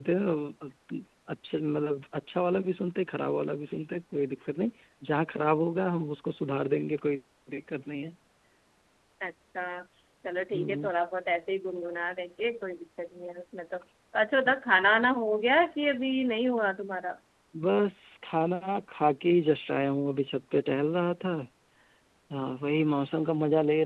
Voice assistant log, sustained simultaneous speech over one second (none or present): none